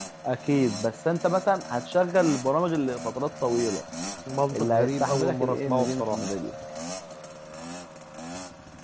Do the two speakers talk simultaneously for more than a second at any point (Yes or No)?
Yes